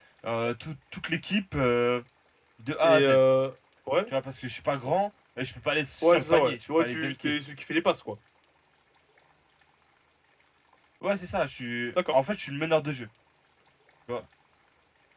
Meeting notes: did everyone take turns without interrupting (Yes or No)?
No